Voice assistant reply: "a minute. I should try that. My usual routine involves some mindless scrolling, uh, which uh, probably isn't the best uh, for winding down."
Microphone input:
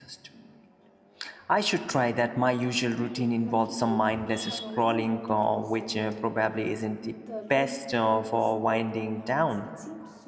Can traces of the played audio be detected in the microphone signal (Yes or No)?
Yes